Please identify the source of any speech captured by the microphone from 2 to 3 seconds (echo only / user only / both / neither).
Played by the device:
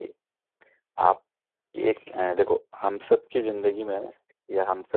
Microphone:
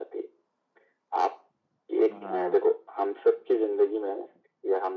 both